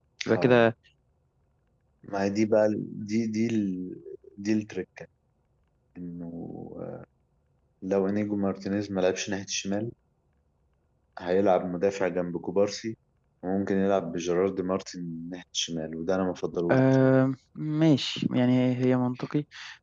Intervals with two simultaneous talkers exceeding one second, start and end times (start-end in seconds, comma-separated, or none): none